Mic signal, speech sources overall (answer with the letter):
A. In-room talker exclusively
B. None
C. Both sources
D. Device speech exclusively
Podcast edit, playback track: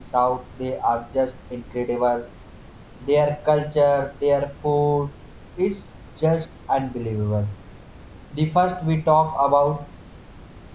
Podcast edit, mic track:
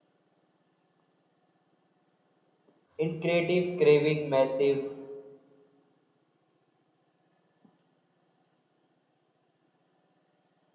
A